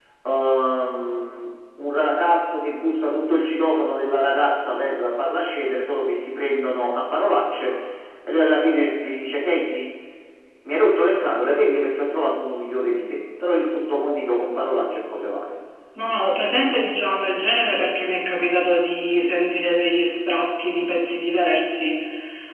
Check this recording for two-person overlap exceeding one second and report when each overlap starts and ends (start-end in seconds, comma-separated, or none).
none